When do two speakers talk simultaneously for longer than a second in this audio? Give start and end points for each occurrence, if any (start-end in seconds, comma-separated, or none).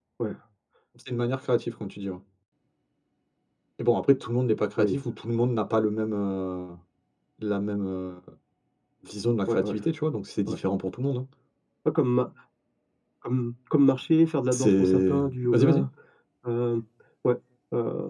14.5-15.8